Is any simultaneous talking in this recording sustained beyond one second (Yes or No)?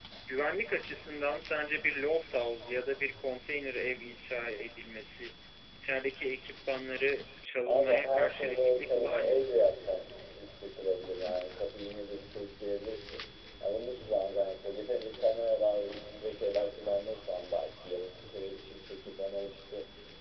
Yes